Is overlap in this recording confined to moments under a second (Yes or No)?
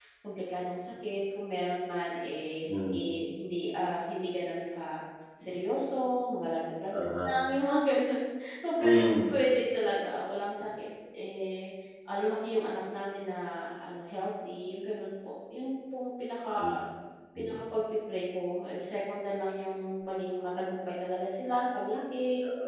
Yes